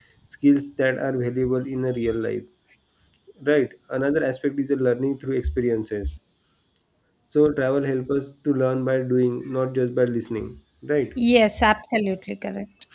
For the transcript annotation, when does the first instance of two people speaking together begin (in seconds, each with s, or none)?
none